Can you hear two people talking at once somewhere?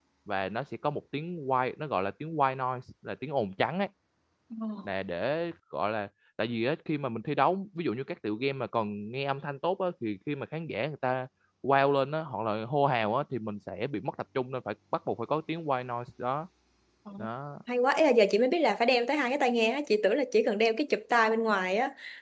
No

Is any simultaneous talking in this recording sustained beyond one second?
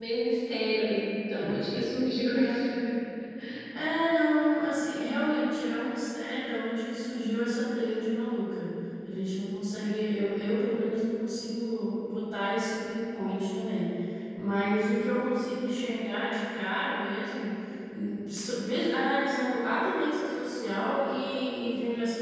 No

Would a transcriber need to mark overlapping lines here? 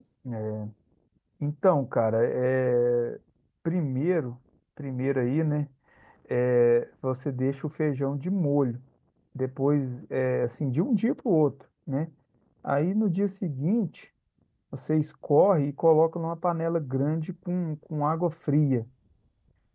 No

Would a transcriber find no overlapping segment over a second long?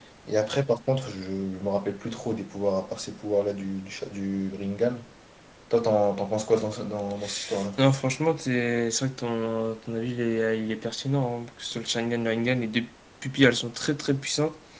Yes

